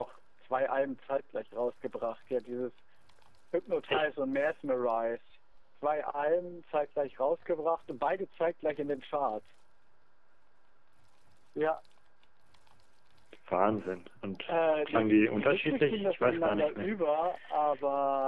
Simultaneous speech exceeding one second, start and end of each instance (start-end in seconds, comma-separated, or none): 14.5-16.9